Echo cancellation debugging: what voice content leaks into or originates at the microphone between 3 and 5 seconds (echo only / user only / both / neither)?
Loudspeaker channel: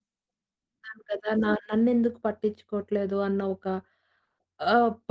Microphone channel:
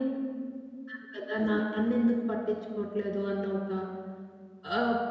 echo only